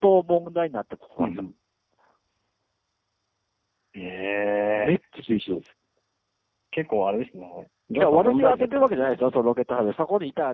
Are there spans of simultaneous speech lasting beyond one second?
Yes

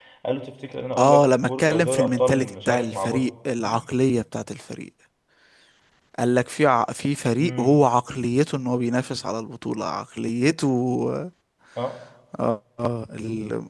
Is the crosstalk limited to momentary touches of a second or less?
No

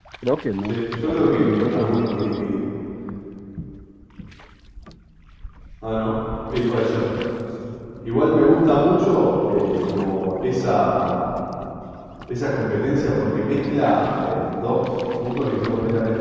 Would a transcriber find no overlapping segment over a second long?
No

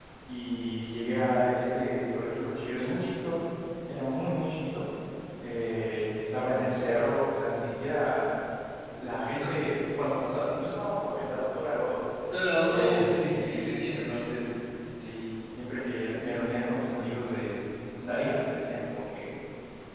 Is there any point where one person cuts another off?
Yes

